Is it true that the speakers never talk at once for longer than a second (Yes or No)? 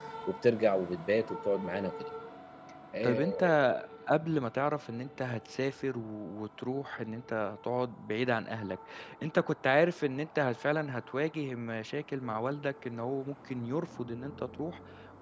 Yes